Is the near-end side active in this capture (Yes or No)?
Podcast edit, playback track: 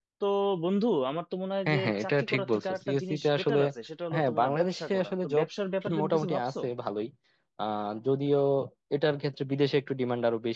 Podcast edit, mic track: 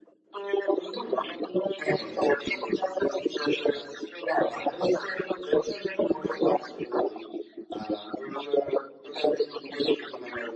No